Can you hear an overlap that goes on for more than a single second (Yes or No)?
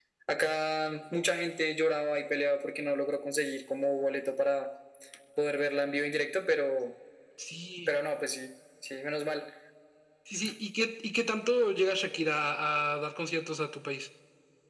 No